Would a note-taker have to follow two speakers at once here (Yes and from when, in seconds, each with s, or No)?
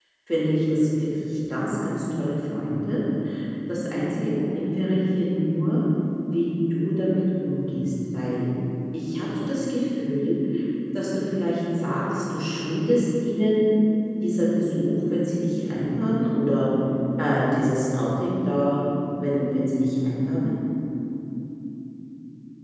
No